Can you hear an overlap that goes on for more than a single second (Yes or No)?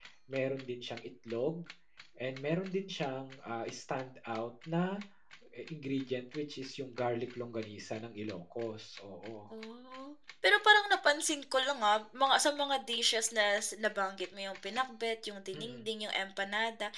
No